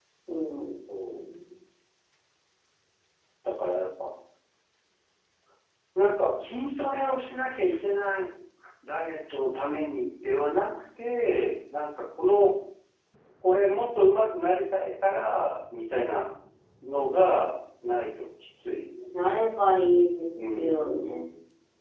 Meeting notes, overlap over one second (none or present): none